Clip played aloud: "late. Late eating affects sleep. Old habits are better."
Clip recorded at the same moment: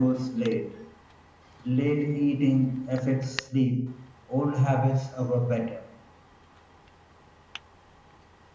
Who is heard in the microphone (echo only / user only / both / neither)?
echo only